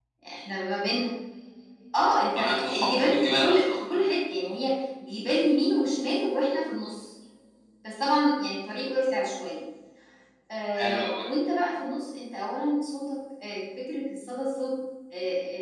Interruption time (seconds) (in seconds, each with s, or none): 2.4 s